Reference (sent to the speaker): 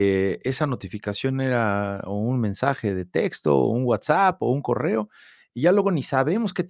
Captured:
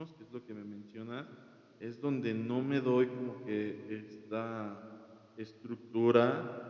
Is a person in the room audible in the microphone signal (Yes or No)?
Yes